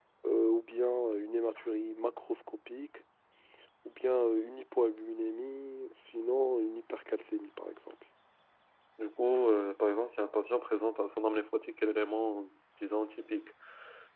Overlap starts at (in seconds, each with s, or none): none